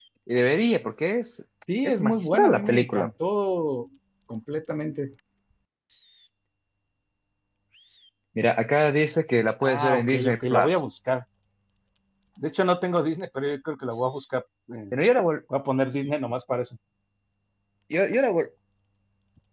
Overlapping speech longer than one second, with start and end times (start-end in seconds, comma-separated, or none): 1.8-3.1, 9.6-10.8